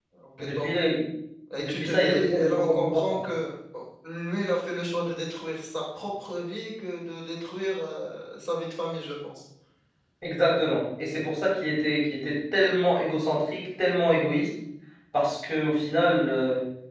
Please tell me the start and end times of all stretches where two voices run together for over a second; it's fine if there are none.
1.6-3.2

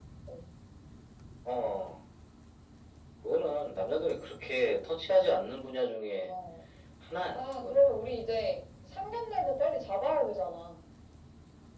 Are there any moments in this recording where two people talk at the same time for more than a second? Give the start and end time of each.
none

